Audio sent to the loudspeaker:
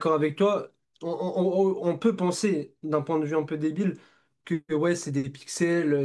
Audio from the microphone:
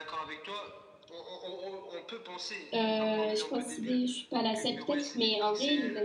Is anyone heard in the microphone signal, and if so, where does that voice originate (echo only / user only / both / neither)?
both